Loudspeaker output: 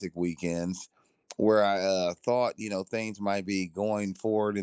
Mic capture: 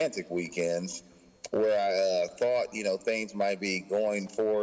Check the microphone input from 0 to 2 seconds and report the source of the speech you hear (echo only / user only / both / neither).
echo only